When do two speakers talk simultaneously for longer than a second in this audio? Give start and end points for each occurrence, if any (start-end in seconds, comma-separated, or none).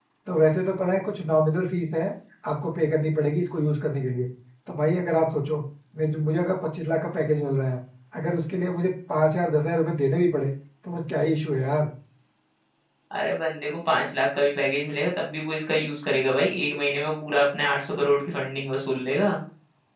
none